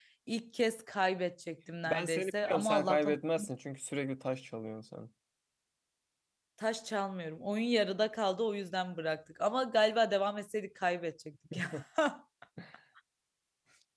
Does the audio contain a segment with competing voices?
Yes, from 1.9 s

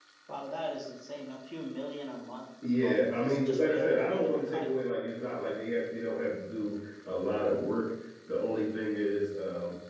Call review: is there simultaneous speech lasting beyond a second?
Yes, from 2.6 s

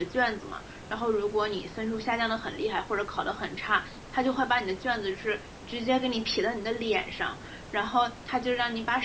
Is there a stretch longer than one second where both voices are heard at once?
No

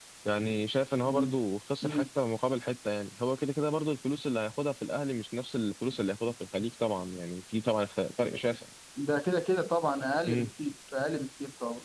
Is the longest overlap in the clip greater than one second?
No

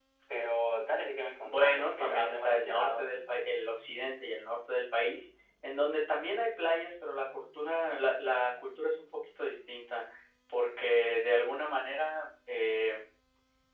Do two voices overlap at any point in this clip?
Yes, from 1.4 s

